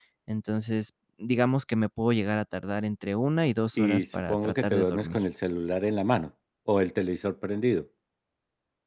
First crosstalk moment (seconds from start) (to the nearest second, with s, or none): 4 s